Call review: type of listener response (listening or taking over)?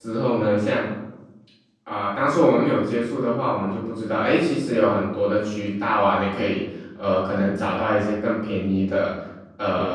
taking over